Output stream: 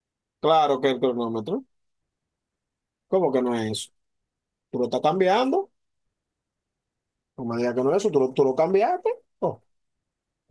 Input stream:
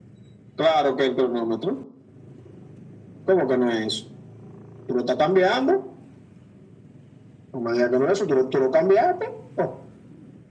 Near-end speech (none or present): none